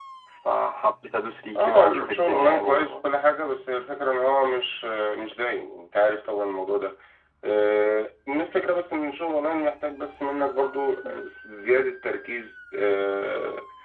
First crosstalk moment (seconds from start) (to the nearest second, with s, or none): 2 s